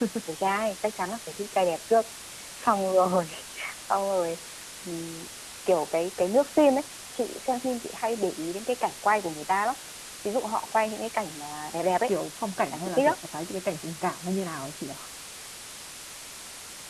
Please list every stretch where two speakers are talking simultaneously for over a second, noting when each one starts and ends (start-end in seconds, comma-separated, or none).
none